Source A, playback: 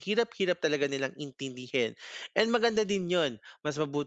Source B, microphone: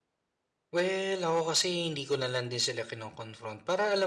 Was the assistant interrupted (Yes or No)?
Yes